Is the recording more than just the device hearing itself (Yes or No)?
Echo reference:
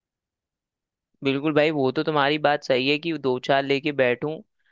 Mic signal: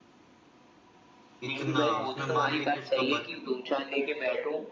Yes